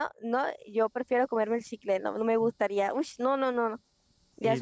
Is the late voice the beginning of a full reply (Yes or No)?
Yes